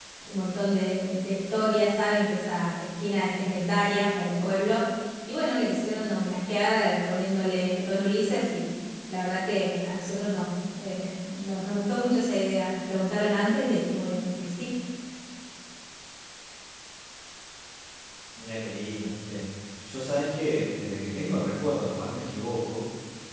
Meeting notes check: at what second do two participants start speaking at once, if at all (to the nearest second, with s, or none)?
none